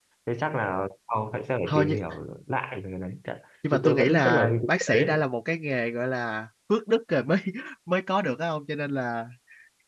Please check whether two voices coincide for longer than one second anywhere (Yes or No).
Yes